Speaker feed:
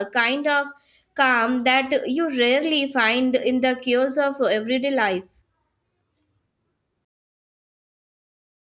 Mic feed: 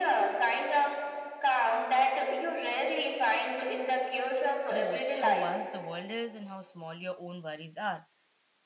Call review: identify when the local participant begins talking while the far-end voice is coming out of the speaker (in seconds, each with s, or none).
4.7 s